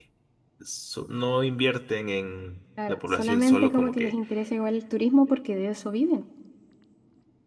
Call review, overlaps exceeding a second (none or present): present